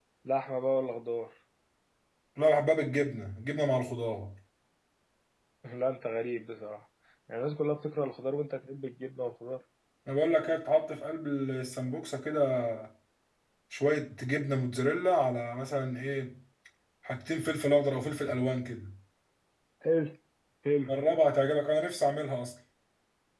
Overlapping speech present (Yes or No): No